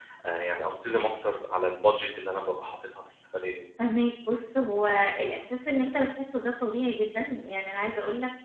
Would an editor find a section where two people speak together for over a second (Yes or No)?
No